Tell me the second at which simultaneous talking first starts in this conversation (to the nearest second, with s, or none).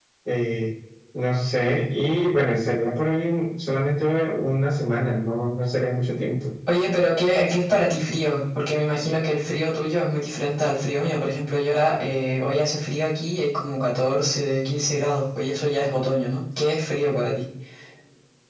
none